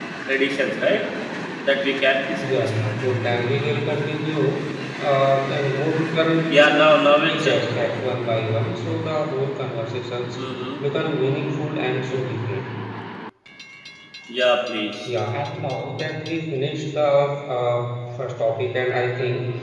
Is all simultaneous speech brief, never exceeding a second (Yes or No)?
Yes